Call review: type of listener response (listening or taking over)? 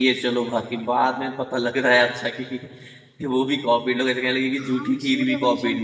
taking over